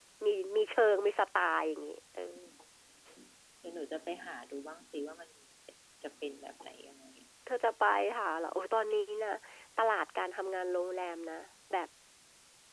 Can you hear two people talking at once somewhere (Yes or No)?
No